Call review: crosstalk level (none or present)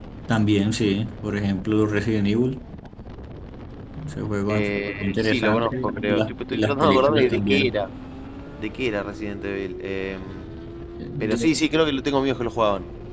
present